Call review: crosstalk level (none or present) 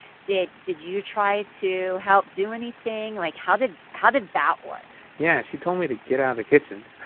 none